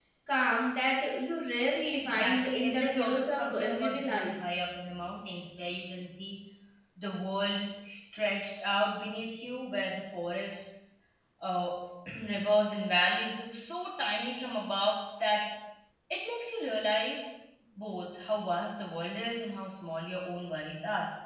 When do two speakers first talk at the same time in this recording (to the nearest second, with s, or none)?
2 s